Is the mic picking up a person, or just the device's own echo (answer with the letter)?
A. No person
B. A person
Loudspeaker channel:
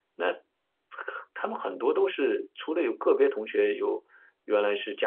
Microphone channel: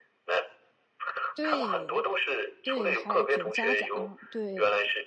B